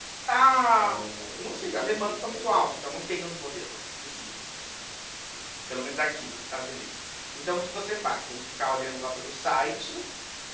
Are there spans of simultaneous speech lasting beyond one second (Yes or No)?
Yes